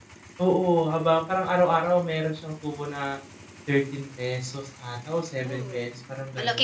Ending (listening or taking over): taking over